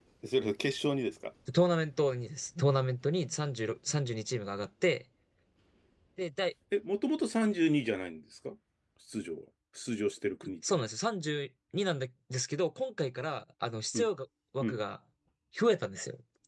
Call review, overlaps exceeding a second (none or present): none